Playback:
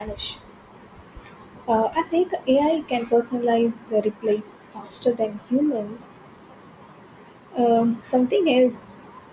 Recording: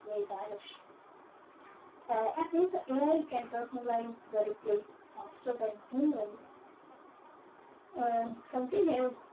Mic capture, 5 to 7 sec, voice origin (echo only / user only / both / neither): echo only